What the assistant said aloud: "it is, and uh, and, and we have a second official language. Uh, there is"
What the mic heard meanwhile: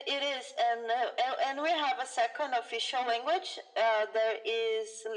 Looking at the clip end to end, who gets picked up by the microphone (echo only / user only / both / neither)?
echo only